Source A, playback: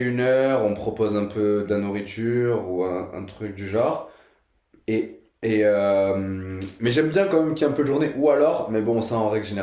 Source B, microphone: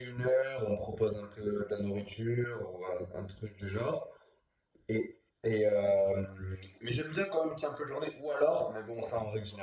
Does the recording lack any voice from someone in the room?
Yes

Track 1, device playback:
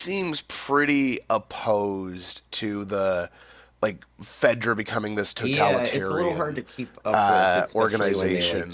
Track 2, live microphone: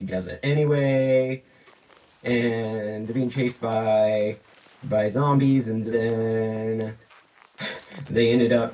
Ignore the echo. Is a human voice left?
Yes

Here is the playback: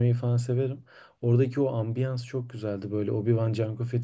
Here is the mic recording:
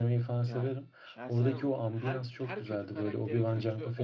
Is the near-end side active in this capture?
Yes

